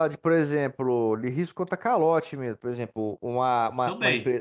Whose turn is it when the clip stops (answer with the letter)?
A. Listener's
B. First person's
B